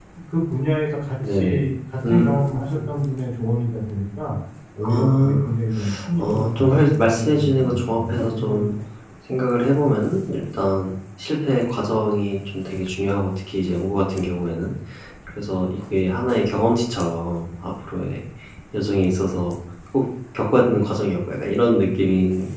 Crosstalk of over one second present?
Yes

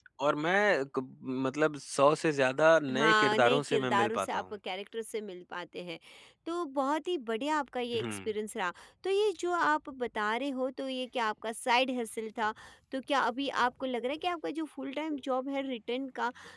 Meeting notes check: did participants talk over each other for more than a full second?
Yes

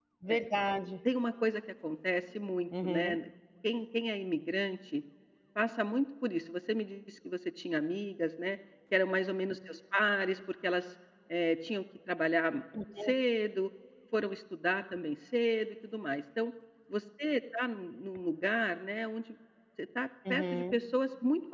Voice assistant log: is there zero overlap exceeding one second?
Yes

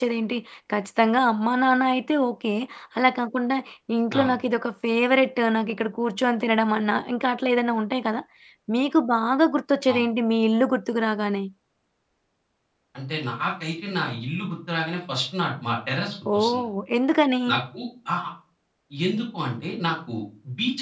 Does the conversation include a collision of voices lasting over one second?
No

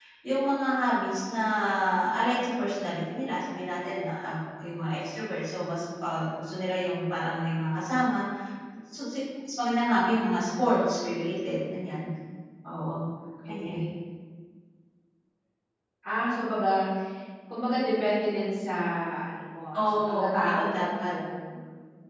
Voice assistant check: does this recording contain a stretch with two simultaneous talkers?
Yes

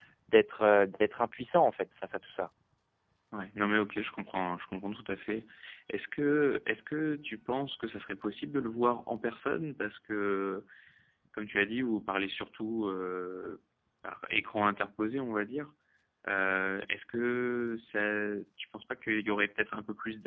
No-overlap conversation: Yes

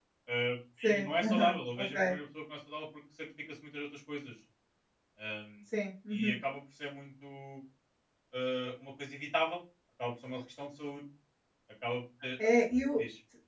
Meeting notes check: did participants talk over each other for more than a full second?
Yes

